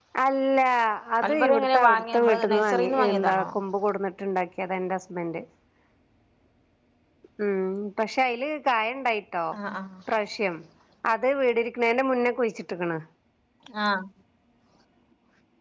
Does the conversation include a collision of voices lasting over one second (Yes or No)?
Yes